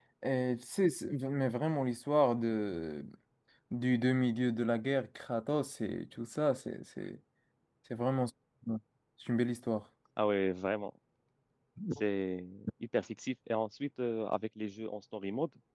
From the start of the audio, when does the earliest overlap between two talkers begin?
none

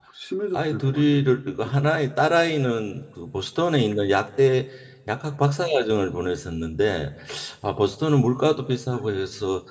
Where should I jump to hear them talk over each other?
0.5 s

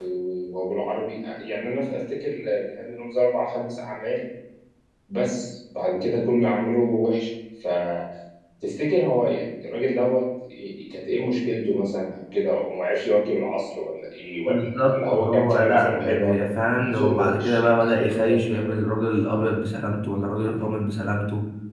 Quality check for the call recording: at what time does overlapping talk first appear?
14.5 s

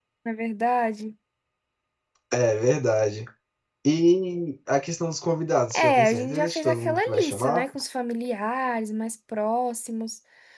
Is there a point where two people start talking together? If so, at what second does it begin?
5.7 s

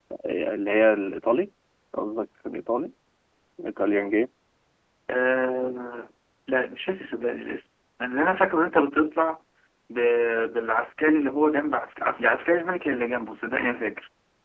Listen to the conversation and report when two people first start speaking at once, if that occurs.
none

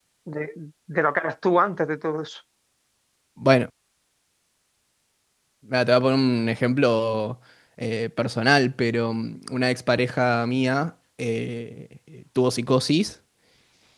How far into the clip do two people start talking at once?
none

